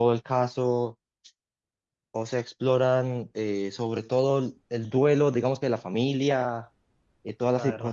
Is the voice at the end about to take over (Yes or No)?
No